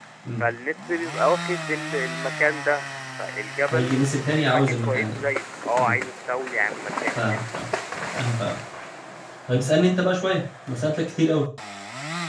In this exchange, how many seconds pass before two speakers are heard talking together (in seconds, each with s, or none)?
3.7 s